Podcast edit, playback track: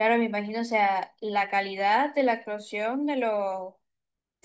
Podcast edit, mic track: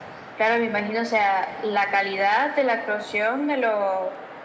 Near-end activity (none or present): none